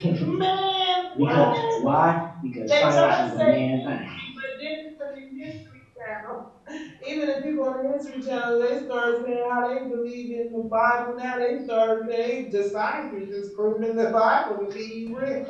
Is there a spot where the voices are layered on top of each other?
Yes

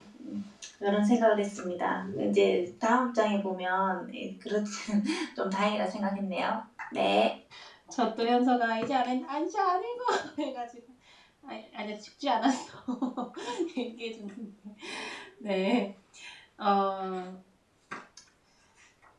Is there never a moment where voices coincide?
Yes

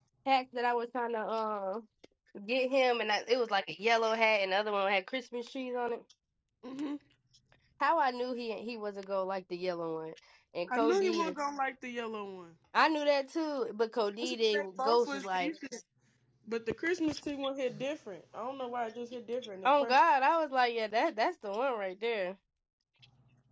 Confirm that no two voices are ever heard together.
No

